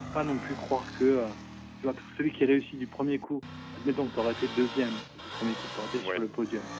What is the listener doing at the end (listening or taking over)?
listening